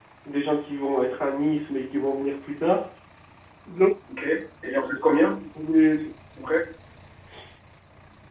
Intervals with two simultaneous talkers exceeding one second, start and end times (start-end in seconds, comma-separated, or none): none